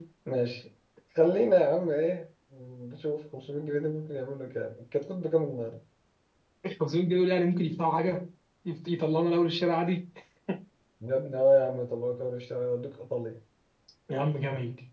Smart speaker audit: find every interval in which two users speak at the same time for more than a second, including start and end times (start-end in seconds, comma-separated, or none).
none